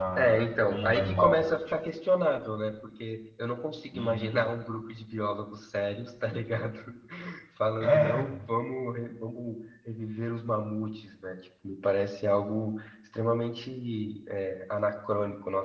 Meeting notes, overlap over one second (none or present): present